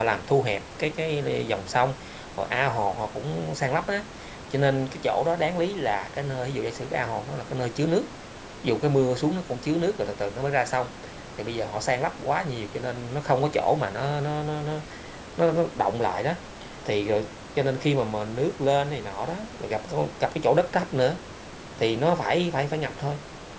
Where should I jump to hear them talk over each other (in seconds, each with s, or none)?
none